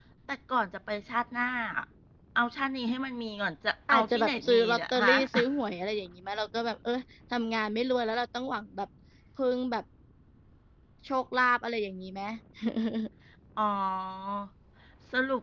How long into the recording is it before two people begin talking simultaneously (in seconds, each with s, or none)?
3.9 s